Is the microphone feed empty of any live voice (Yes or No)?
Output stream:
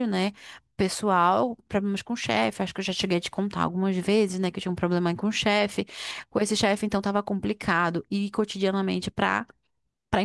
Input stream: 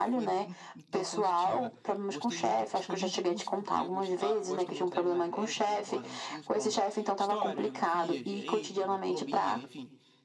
No